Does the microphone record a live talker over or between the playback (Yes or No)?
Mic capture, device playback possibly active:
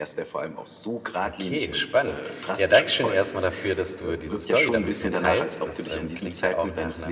Yes